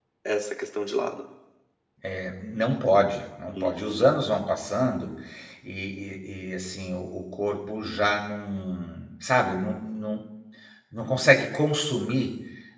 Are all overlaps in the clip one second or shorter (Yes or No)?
Yes